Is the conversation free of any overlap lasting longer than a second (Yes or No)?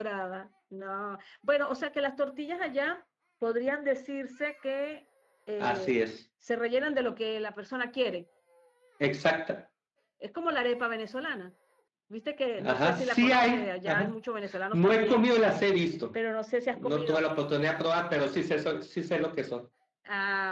No